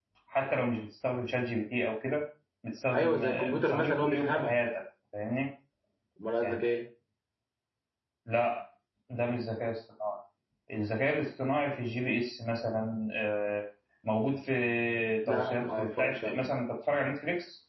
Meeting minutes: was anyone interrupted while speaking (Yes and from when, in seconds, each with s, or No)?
Yes, from 2.9 s